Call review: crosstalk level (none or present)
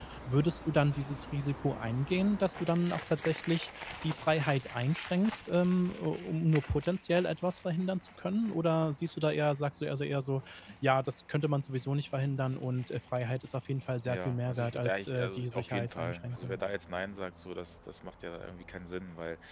present